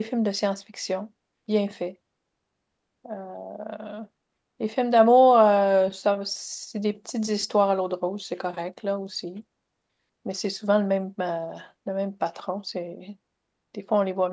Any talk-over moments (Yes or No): No